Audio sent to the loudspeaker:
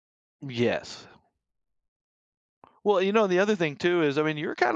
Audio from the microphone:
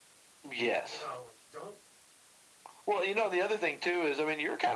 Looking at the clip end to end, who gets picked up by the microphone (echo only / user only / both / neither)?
both